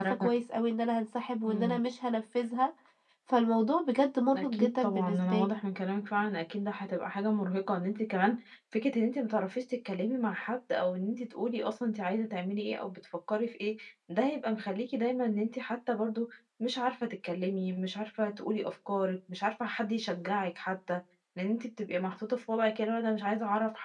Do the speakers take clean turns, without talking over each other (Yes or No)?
No